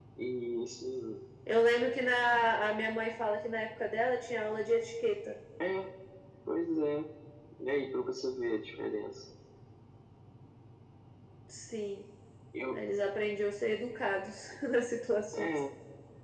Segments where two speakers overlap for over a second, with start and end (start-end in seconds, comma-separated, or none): none